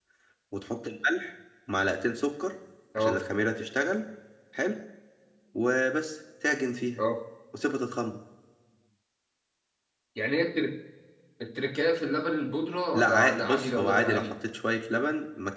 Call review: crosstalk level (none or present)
present